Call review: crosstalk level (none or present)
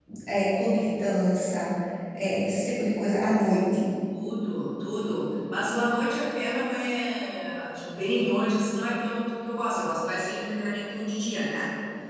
none